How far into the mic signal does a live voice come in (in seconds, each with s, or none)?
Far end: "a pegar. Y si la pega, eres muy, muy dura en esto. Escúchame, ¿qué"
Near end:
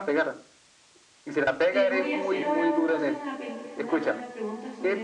1.7 s